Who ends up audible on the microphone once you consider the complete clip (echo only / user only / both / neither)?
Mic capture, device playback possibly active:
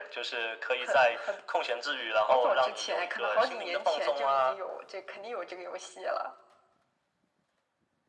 echo only